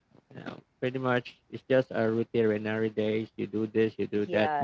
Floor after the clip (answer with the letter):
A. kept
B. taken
B